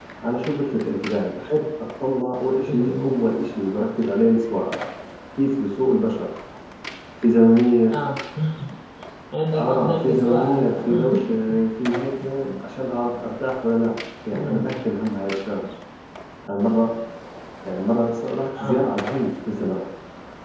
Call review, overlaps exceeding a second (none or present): present